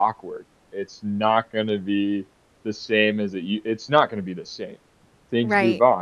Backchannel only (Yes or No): No